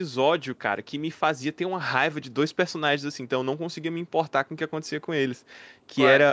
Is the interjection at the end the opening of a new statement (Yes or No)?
No